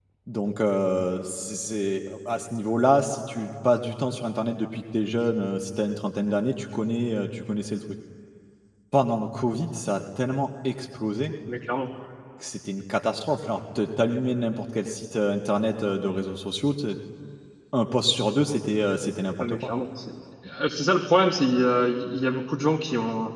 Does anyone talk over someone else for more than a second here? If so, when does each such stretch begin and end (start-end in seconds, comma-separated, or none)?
none